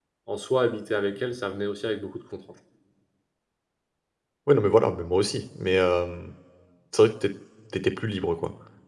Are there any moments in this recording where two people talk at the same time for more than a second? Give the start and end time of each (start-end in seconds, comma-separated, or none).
none